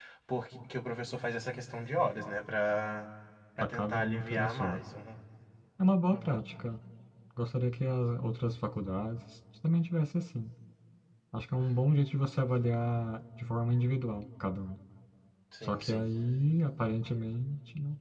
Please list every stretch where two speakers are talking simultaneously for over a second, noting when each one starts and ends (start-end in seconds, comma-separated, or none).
3.6-4.8